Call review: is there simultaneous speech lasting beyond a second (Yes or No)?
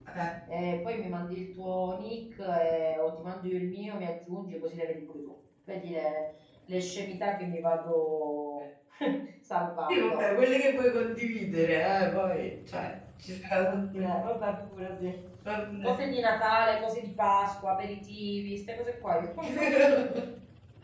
No